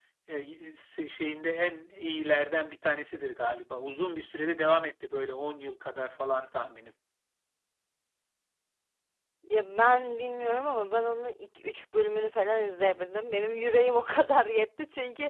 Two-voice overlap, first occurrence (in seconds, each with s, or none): none